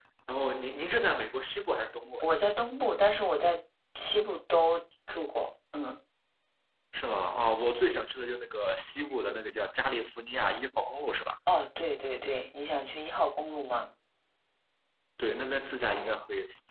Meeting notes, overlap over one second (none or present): none